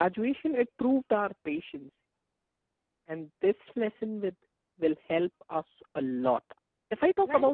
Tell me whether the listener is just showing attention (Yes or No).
Yes